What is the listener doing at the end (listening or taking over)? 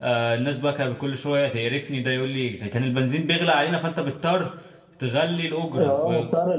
taking over